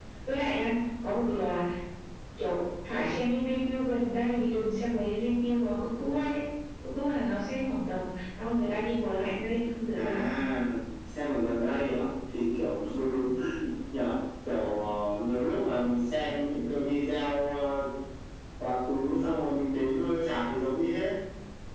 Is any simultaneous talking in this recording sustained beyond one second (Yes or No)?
No